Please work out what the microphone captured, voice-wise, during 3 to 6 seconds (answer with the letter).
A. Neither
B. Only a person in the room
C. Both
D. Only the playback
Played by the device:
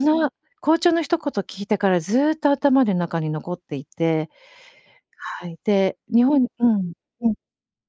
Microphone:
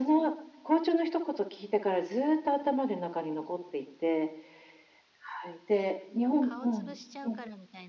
D